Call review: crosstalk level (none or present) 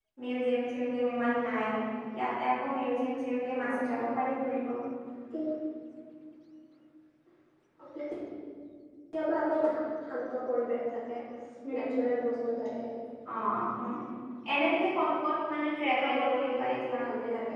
present